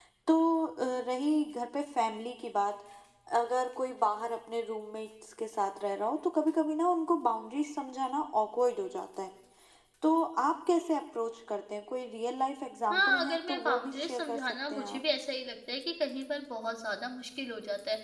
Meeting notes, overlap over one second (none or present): present